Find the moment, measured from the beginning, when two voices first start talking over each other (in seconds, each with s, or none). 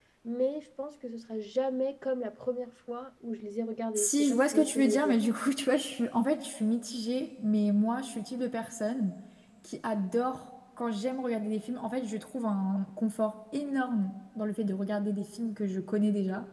4.0 s